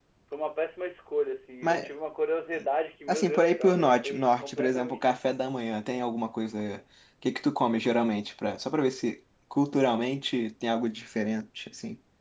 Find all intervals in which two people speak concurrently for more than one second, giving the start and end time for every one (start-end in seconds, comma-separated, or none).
3.1-5.3